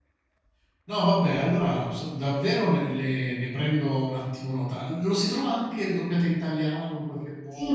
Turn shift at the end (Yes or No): Yes